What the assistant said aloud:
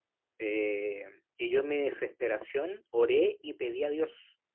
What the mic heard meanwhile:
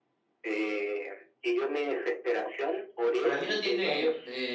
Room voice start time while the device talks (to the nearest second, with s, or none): 3 s